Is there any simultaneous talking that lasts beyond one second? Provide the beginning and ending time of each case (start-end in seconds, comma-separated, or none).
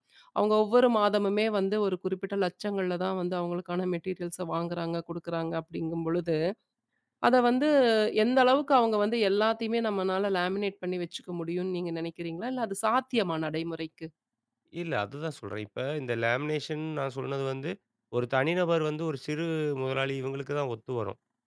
none